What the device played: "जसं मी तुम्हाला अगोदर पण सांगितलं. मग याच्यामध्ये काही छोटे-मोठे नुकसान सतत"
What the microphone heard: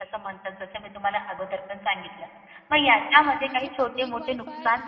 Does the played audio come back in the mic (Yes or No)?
Yes